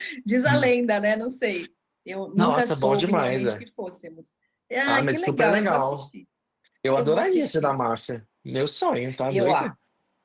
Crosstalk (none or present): present